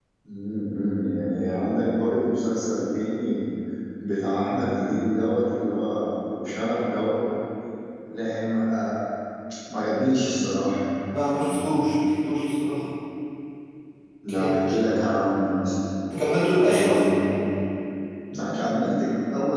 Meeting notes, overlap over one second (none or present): none